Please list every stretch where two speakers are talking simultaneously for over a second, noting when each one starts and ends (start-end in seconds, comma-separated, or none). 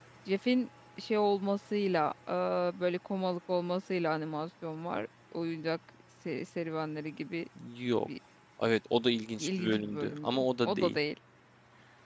9.4-11.0